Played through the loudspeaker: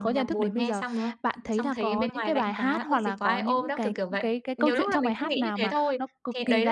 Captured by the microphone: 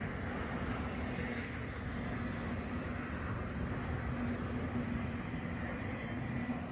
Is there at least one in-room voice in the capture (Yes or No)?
No